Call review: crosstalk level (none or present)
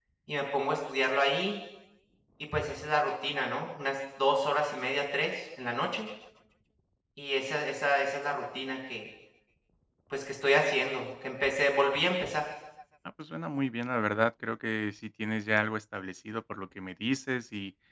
none